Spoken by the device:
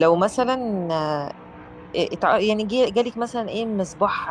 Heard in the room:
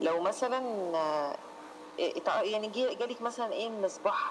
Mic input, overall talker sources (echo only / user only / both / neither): echo only